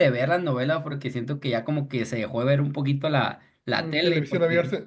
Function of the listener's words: taking over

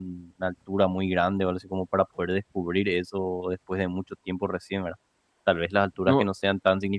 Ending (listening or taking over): listening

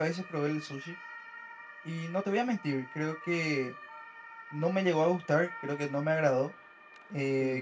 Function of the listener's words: listening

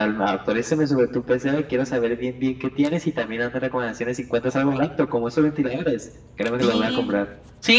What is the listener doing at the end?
taking over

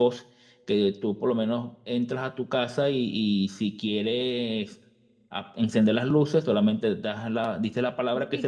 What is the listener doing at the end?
taking over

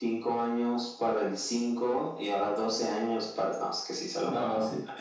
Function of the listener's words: taking over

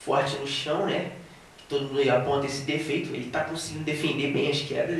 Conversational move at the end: taking over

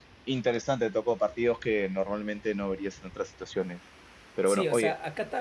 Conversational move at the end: taking over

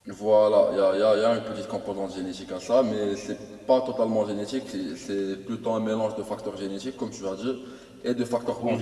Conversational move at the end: listening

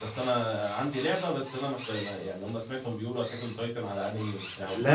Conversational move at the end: taking over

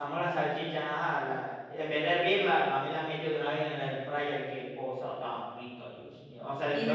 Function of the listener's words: listening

